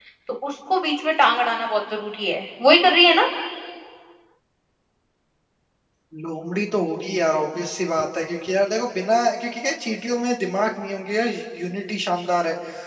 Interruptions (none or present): none